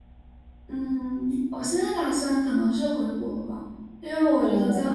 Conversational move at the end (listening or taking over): listening